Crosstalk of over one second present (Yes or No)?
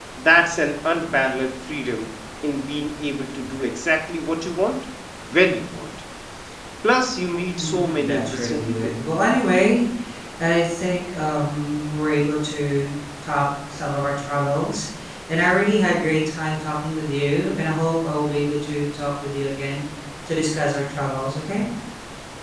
Yes